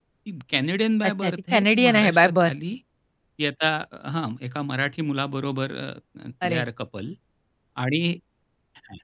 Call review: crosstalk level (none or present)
present